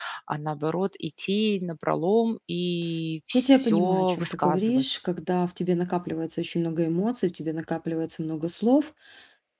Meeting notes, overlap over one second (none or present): present